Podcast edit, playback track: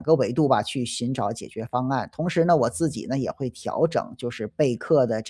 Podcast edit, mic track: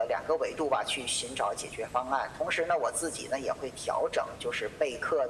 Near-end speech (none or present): none